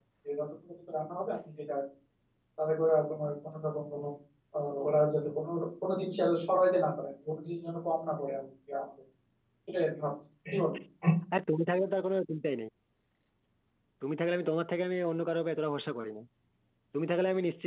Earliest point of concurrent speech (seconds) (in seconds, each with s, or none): none